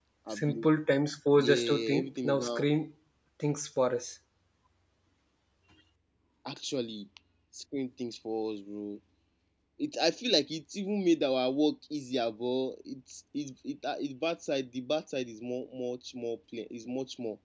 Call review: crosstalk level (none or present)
present